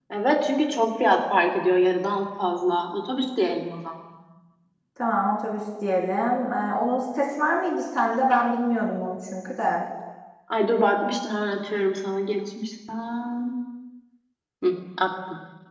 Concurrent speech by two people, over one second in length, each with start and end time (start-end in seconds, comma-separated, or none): none